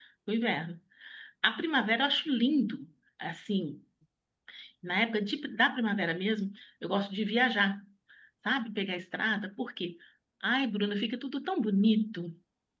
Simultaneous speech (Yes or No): No